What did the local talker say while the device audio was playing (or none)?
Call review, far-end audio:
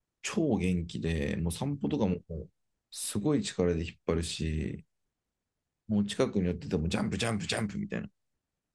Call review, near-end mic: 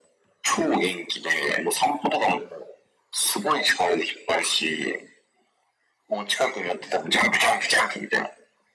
none